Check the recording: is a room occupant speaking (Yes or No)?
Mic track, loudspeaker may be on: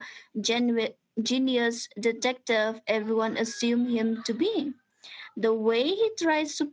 Yes